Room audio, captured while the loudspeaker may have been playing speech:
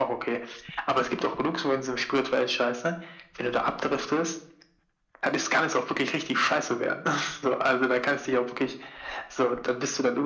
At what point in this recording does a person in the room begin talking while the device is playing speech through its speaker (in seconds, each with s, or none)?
none